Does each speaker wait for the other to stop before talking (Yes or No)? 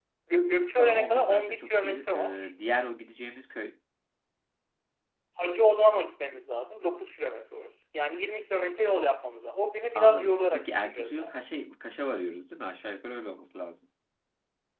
No